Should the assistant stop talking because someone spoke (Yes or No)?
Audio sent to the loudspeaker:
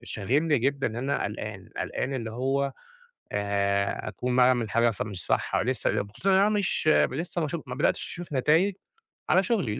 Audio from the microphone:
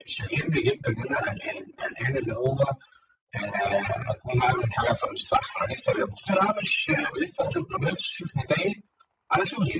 No